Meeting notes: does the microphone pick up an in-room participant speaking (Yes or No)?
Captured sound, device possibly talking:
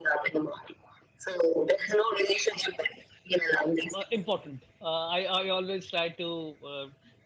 Yes